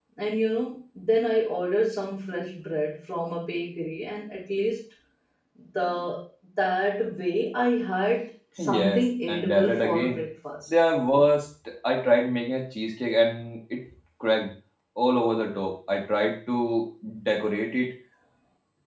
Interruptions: present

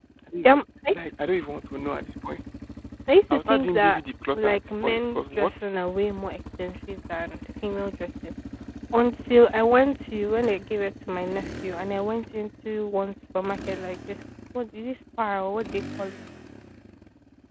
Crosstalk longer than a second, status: present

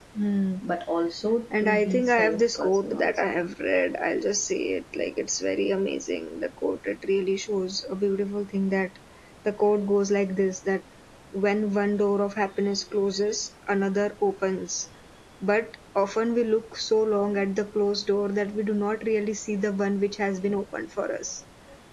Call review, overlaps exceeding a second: present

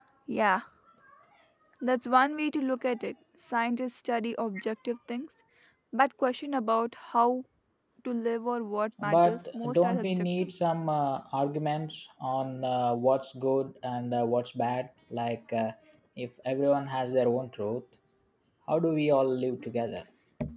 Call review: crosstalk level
present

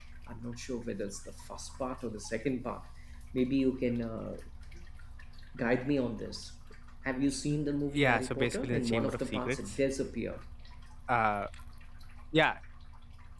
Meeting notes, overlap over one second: present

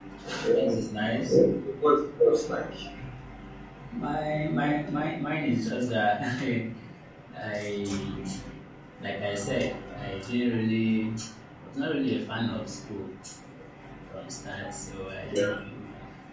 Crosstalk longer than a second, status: none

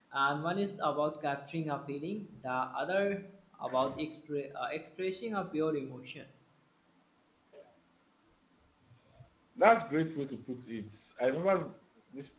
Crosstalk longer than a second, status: none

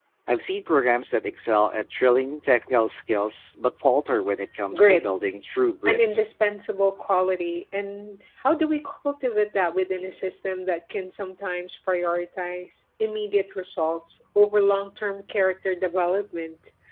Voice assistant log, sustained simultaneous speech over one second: none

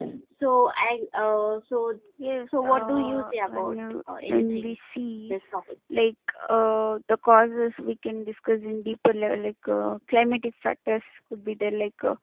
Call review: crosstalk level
present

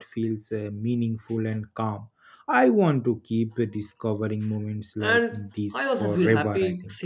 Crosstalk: present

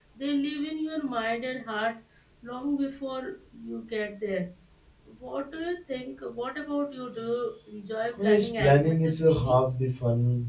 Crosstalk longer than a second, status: present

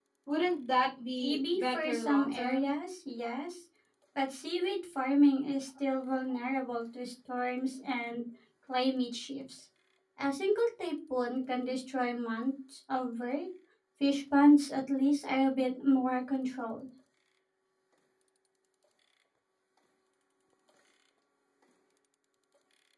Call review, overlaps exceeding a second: present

